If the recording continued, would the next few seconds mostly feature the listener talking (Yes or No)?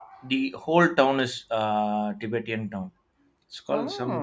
No